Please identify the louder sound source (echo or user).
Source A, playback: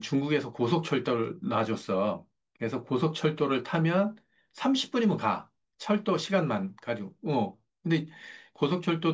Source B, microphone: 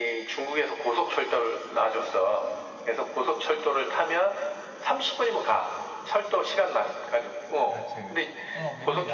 echo